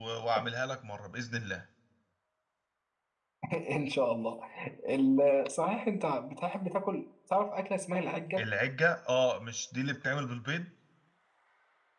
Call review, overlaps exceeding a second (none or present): none